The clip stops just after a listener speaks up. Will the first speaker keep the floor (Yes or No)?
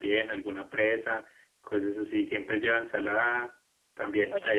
No